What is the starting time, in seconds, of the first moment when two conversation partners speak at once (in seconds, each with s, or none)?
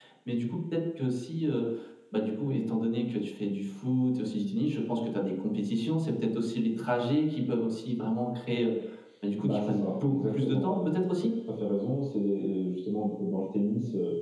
9.4 s